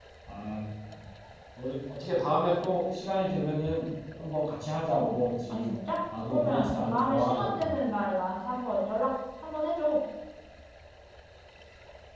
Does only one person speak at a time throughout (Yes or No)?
No